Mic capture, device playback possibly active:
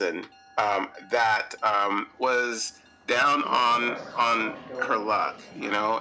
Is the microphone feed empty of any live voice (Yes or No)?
No